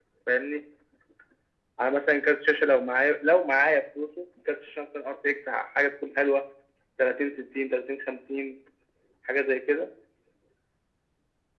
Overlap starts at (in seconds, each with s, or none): none